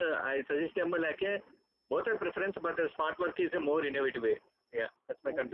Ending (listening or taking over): taking over